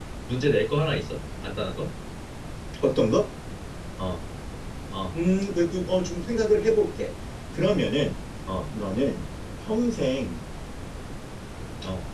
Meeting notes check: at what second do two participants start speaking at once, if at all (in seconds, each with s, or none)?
none